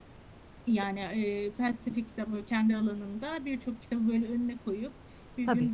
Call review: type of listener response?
listening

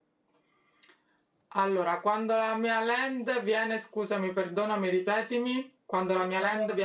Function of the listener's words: taking over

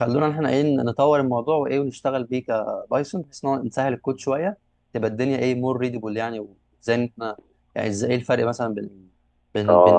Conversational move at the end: taking over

